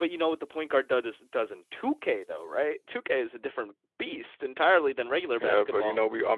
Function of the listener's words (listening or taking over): taking over